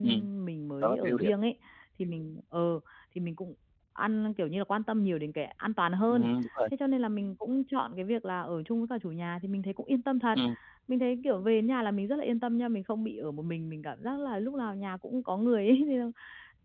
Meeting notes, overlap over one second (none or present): none